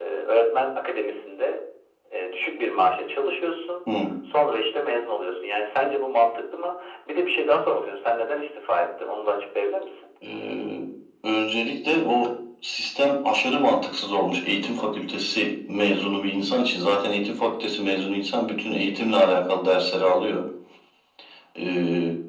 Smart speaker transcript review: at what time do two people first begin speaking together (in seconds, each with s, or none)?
none